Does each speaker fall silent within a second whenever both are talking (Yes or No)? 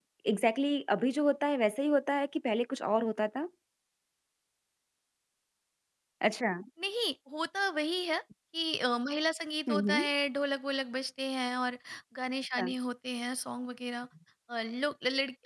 Yes